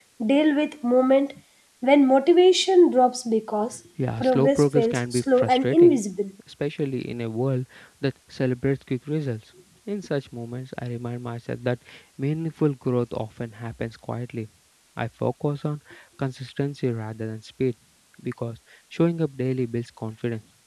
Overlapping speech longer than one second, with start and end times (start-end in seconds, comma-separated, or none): 4.2-6.0